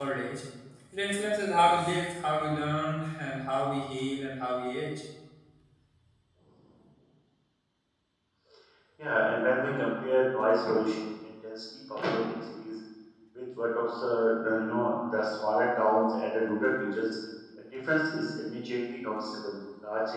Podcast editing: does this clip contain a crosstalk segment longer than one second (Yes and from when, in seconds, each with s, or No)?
No